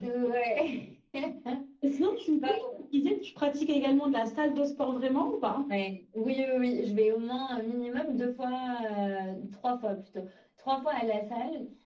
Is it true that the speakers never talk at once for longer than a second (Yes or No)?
Yes